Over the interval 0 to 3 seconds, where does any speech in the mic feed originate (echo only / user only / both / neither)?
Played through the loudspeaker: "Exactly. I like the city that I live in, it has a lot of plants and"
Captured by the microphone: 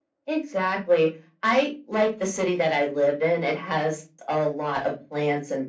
echo only